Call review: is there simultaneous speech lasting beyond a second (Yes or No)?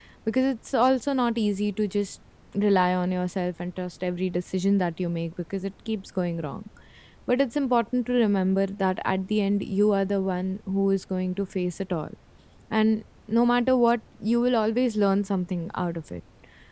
No